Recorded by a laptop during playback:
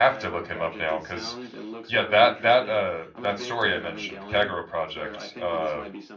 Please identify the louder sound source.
user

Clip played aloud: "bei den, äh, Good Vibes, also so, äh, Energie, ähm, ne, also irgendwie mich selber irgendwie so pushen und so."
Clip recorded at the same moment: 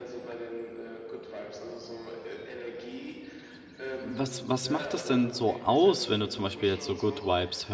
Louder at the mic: user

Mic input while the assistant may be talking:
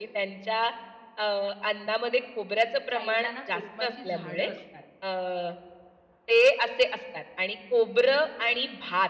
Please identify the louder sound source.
echo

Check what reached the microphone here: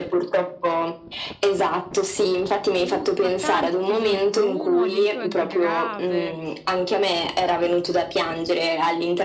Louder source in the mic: echo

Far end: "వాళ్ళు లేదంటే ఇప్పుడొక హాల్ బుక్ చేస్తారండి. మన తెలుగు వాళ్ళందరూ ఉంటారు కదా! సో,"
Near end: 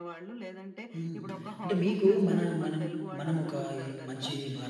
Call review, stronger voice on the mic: user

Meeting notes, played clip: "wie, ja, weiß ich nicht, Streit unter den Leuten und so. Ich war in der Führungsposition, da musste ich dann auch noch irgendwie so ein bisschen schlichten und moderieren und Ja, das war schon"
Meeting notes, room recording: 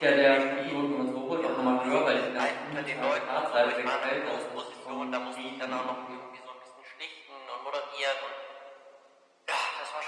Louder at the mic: user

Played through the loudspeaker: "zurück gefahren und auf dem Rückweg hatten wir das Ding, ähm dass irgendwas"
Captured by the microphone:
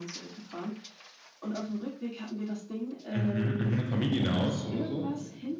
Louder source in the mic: user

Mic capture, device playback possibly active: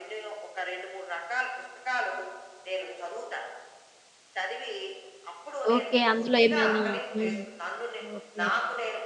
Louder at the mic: user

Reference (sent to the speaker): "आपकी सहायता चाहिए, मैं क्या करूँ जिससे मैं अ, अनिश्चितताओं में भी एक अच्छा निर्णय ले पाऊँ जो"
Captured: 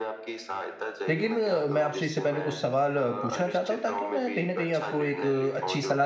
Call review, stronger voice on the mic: user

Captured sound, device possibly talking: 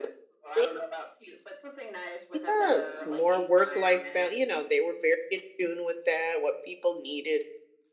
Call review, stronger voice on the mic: user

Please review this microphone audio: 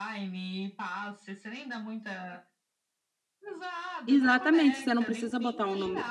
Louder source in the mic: user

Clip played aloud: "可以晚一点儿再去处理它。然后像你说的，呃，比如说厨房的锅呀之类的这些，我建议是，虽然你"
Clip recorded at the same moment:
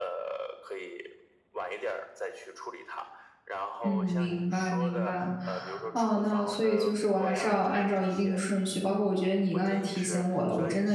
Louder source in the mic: user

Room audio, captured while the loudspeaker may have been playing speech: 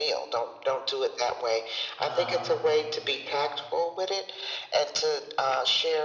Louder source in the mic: echo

